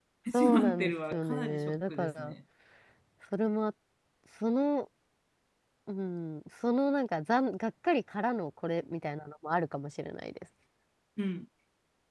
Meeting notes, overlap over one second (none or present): present